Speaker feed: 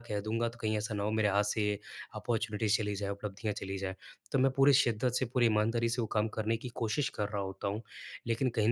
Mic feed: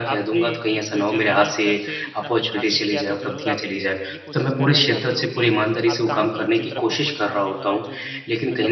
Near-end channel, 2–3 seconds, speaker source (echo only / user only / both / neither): both